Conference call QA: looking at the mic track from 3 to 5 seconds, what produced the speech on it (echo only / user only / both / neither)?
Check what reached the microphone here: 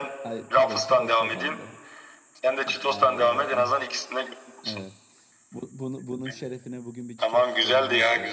both